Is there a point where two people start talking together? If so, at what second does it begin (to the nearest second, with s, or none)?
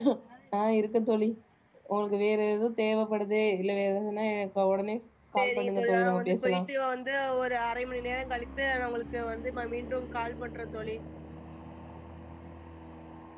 5 s